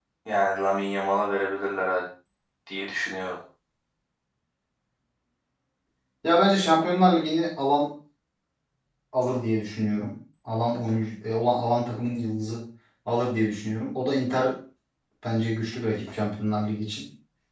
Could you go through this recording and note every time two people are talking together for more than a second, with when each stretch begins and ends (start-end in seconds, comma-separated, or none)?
none